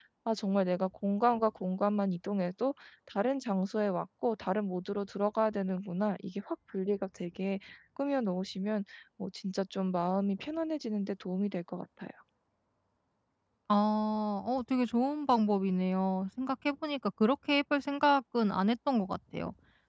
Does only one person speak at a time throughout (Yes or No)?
Yes